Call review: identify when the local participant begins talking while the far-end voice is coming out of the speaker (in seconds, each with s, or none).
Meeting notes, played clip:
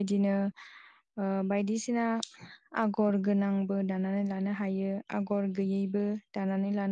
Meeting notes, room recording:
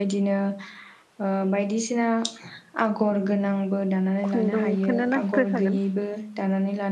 4.3 s